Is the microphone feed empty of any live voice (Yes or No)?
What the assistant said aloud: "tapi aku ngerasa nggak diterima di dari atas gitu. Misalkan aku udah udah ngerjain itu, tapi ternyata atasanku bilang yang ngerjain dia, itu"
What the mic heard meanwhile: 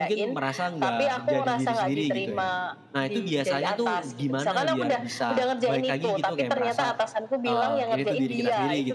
No